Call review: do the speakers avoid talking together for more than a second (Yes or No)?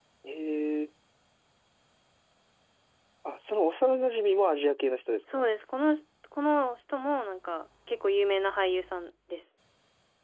Yes